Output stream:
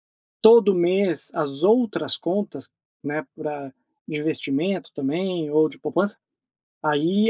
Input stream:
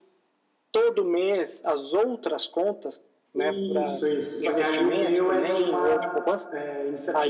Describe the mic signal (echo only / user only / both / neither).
both